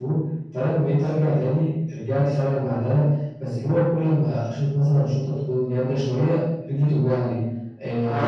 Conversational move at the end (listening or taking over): taking over